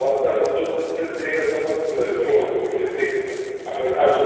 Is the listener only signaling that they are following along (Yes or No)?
Yes